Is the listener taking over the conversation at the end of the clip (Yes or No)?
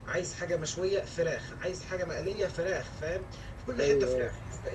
No